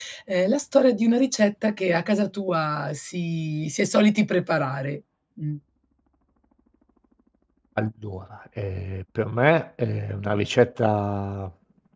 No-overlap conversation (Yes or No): Yes